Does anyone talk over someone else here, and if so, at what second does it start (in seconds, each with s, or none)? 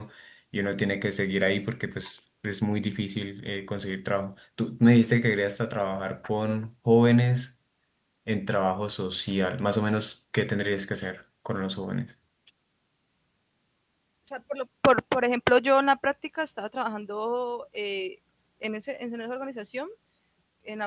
none